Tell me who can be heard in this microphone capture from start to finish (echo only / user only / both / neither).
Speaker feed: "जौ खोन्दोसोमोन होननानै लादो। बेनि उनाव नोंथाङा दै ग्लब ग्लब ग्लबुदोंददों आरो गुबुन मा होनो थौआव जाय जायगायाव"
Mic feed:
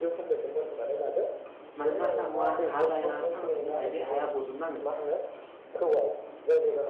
both